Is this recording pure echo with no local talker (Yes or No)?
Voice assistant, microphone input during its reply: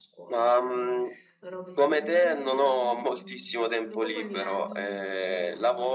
No